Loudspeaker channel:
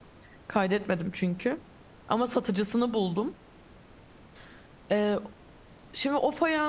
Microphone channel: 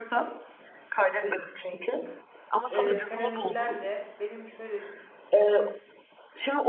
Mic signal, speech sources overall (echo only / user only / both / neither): both